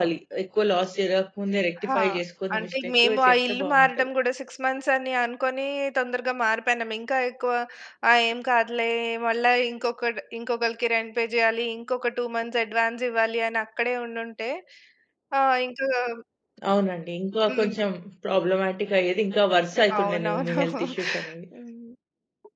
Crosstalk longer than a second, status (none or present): present